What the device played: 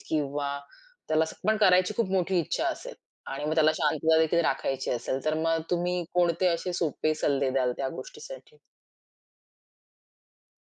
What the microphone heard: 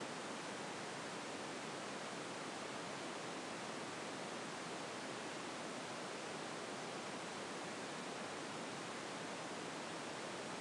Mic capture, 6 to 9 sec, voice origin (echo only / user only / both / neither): neither